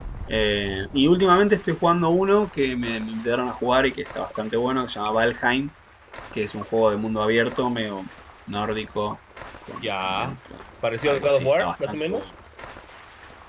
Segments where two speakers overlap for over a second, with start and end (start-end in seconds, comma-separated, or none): 11.1-12.2